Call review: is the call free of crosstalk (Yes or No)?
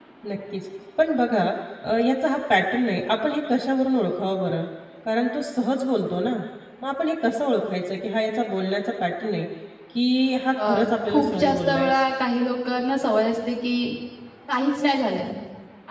No